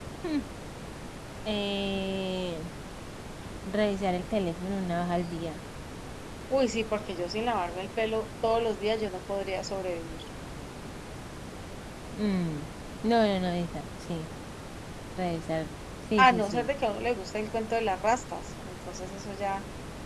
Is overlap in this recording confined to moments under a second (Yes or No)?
Yes